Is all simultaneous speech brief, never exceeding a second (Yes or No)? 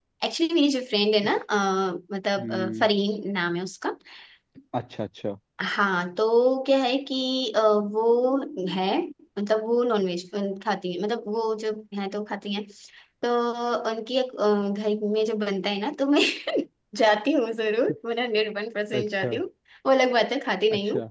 Yes